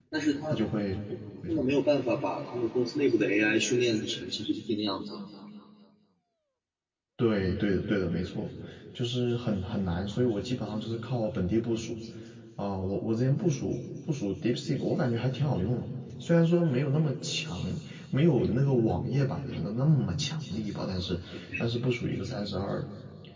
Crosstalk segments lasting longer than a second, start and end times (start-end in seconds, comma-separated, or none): none